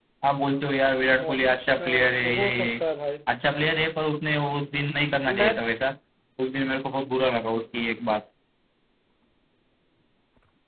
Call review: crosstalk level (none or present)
present